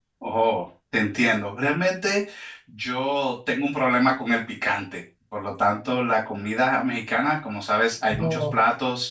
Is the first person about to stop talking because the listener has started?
No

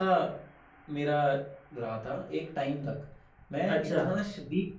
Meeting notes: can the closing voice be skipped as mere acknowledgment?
Yes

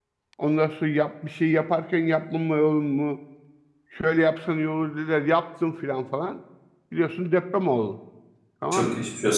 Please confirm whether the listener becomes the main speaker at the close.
Yes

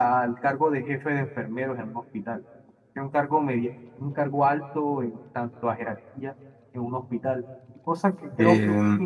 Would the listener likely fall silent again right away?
Yes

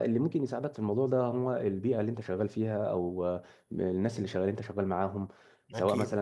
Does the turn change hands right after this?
No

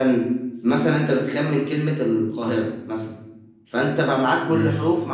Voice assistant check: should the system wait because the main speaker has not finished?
Yes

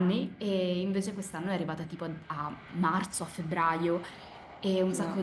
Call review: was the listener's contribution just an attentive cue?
Yes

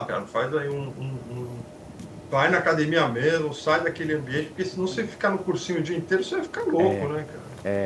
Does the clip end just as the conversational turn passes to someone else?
Yes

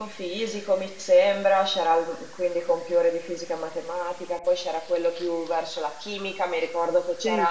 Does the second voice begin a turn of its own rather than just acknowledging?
No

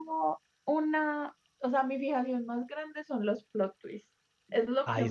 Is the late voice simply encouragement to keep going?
Yes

